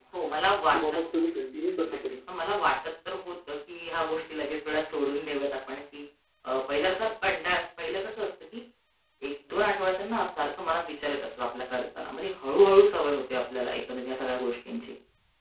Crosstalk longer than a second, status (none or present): none